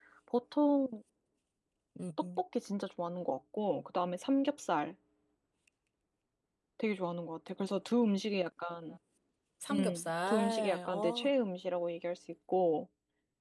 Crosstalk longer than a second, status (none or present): present